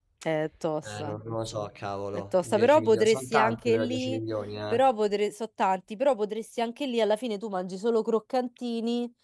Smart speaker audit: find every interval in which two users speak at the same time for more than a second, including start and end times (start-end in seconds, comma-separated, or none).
2.1-4.2